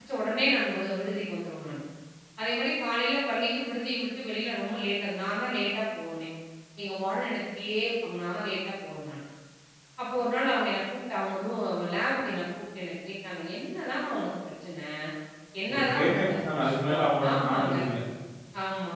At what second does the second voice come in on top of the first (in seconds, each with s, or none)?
15.7 s